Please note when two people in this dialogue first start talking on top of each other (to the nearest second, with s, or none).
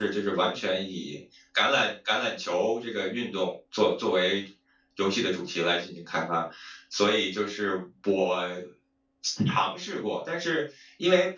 none